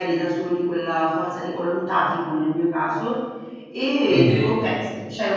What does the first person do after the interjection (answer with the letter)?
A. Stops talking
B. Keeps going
B